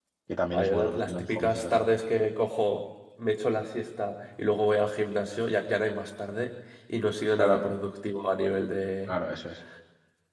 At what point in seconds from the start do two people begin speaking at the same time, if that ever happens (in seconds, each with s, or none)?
0.5 s